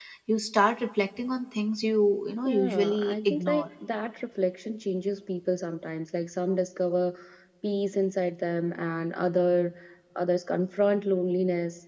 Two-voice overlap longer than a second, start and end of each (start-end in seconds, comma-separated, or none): 2.4-3.7